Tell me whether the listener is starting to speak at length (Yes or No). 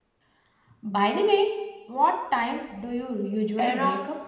Yes